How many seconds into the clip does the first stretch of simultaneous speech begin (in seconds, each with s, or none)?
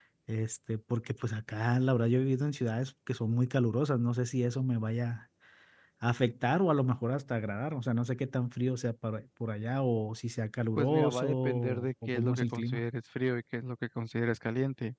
10.8 s